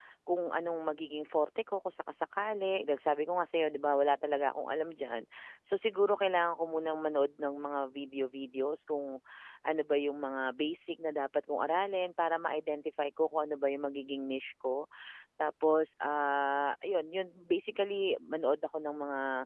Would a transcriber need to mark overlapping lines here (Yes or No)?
No